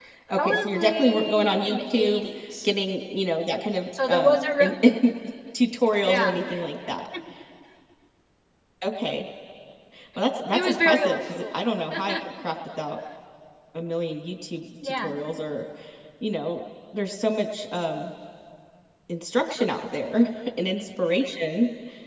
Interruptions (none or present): present